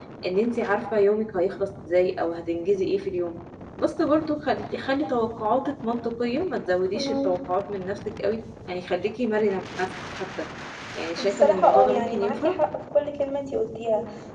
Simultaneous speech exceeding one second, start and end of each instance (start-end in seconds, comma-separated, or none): 11.2-12.5